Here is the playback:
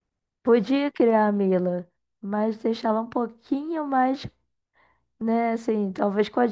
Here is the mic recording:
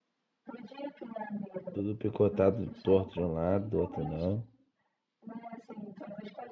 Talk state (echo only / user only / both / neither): both